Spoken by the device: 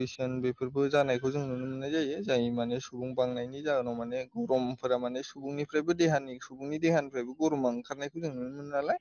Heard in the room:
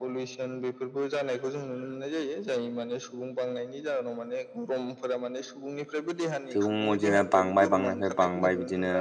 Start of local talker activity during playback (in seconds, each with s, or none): 6.5 s